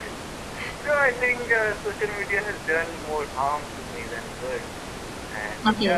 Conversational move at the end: taking over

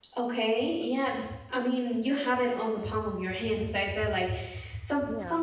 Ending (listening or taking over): listening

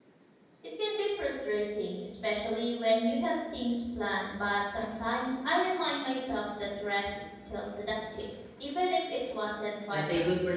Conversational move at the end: taking over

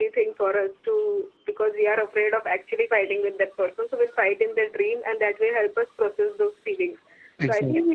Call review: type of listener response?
listening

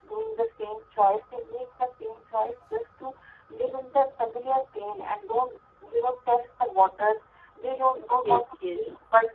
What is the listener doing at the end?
listening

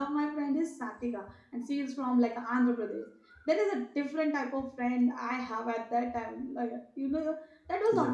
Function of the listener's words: listening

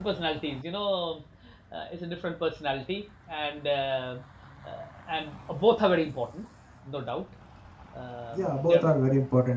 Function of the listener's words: taking over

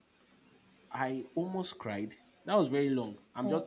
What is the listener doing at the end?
listening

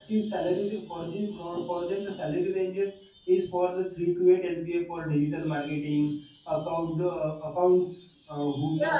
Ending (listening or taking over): taking over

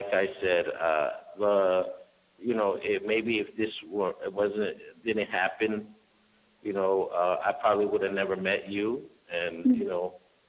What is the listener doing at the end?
listening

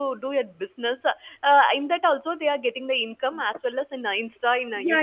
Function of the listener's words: taking over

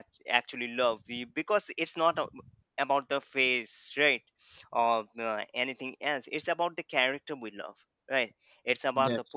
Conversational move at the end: listening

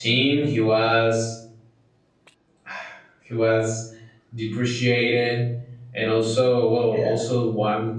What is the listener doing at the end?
listening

